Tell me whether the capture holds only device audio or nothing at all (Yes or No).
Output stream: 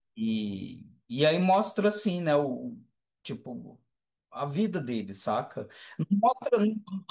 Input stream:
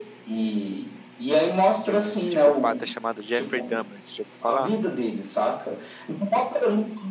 No